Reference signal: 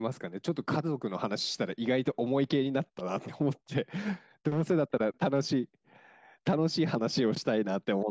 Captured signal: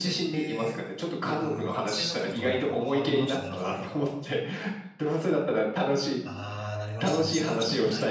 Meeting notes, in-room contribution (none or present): present